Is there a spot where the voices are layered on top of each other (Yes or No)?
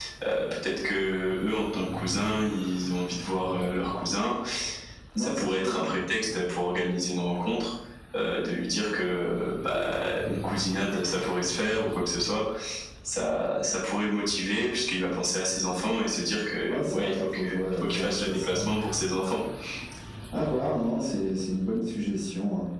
Yes